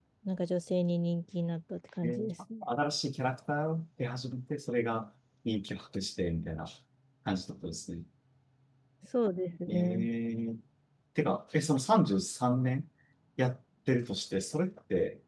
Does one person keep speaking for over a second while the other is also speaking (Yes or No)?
No